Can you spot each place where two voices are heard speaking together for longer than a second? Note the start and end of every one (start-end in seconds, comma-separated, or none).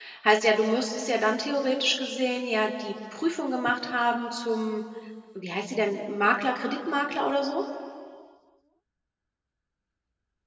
none